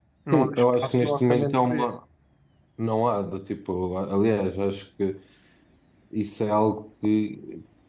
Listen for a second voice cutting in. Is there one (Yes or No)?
Yes